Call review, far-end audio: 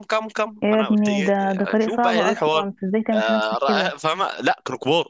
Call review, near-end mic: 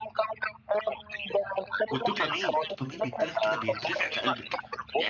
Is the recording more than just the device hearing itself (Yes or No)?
Yes